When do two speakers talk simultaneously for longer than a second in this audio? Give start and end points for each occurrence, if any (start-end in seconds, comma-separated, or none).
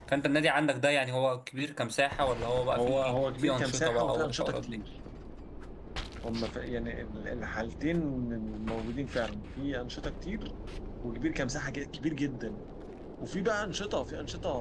2.8-4.8